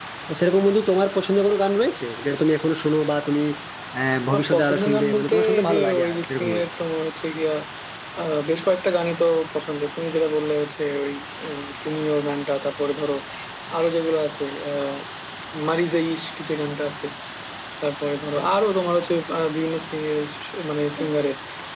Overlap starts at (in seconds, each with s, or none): 4.4 s